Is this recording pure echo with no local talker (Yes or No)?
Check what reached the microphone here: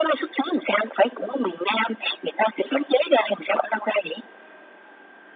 Yes